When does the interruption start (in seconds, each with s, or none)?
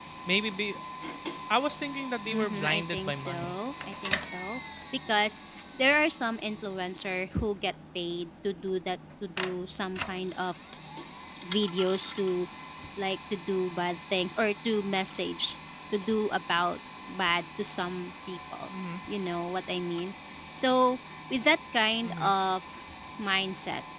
2.2 s